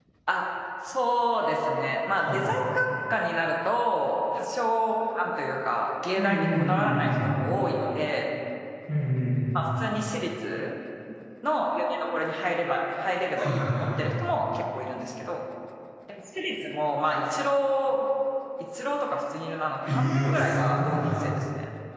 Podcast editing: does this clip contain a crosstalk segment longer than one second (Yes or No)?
Yes